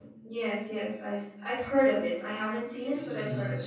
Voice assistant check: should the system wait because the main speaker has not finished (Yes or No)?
No